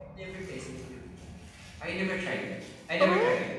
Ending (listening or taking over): taking over